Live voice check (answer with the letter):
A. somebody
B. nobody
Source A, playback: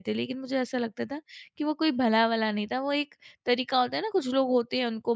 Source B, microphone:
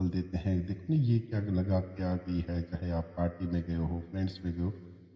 A